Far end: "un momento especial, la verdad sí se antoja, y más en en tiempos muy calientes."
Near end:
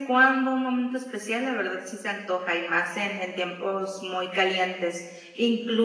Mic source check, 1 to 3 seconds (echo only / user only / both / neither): echo only